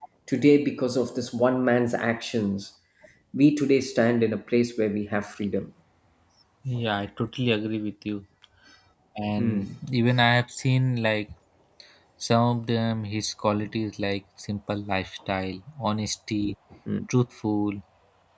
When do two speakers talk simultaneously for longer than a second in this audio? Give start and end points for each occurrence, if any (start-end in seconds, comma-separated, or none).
none